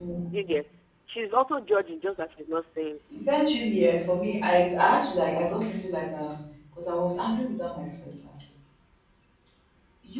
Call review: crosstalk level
none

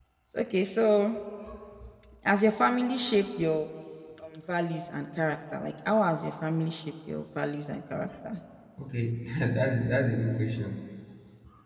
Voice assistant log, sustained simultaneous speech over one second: none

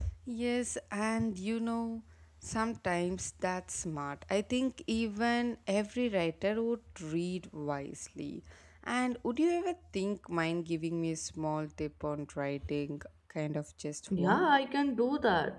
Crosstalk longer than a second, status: none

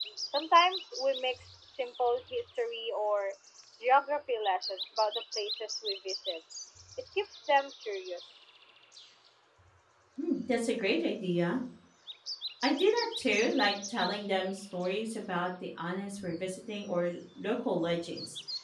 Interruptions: none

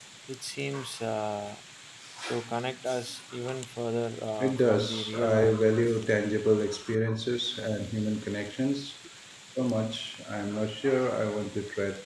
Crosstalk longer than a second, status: present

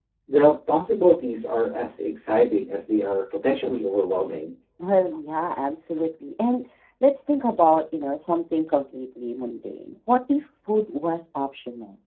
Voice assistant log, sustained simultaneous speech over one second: none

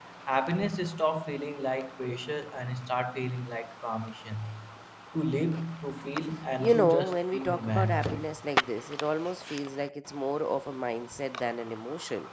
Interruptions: present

